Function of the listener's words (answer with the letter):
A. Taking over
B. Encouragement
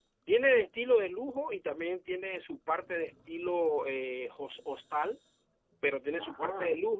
B